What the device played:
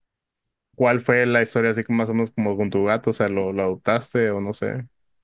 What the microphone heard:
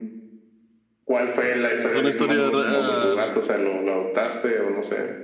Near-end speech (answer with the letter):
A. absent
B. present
B